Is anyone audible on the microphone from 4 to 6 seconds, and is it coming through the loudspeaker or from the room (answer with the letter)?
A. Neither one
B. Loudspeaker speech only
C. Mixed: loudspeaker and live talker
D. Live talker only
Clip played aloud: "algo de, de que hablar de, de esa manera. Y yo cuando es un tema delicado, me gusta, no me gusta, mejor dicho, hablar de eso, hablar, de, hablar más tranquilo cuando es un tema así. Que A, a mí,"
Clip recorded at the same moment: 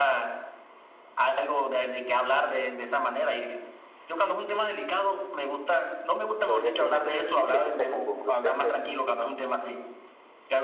B